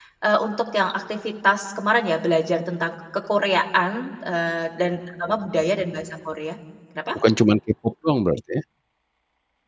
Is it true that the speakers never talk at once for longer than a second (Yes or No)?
Yes